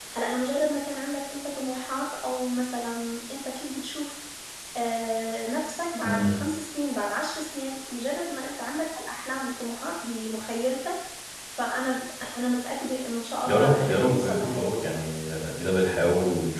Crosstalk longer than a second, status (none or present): present